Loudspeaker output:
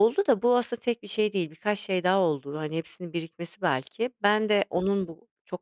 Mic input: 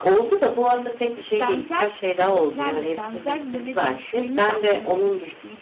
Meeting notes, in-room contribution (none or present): present